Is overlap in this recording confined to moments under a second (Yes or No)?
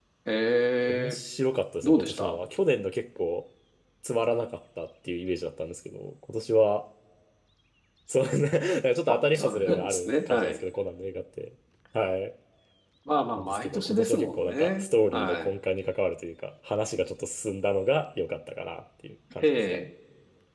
No